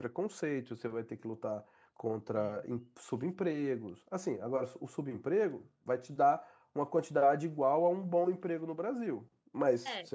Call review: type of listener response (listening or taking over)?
listening